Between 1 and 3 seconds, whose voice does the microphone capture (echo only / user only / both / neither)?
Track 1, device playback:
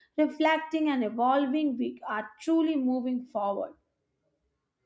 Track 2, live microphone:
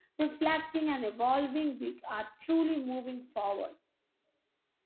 echo only